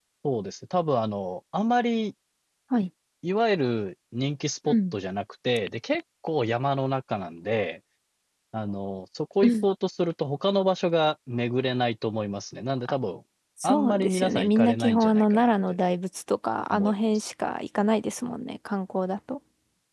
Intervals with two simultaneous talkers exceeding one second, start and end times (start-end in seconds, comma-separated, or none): 13.6-15.5